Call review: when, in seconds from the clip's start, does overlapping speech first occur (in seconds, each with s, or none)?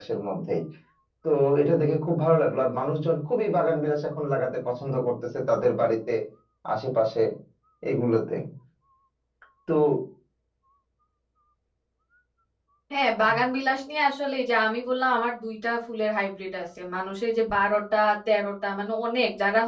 none